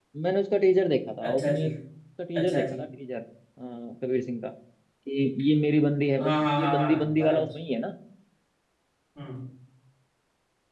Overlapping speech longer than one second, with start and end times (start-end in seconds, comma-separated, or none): 6.2-7.5